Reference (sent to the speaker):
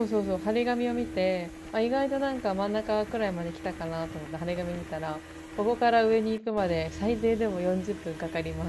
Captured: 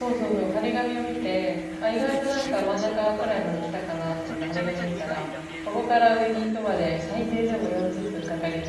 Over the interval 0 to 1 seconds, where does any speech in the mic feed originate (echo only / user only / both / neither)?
echo only